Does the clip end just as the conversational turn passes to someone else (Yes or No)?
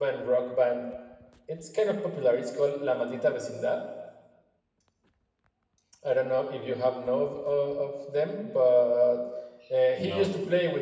No